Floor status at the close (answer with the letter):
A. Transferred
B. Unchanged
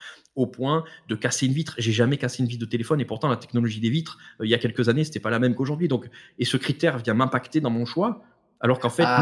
A